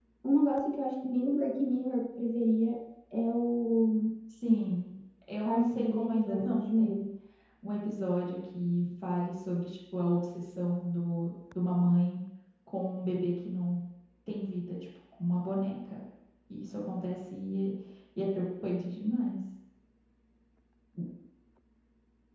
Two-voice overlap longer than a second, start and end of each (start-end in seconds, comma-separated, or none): 5.5-7.0